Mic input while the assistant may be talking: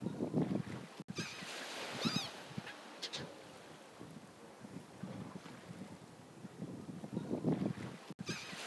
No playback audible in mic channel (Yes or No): Yes